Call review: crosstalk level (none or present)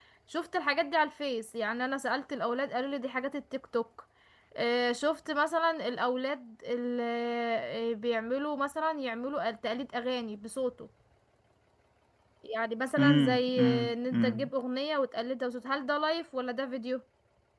present